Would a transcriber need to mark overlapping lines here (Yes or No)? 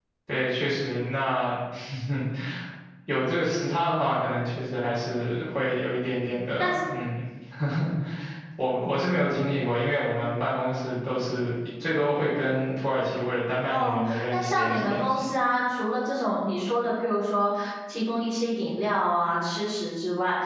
Yes